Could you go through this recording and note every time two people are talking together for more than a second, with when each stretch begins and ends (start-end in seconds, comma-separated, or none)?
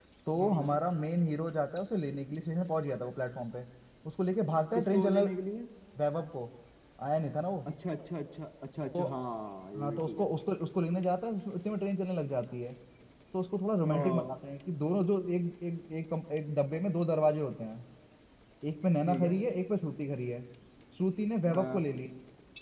none